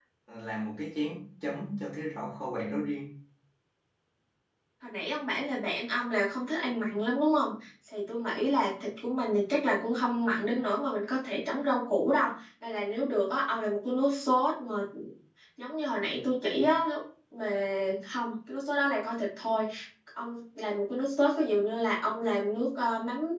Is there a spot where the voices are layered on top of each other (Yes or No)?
No